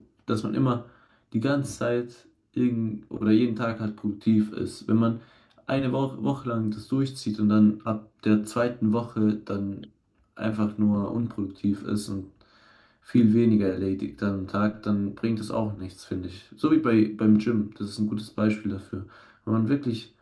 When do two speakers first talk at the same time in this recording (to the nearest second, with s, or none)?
none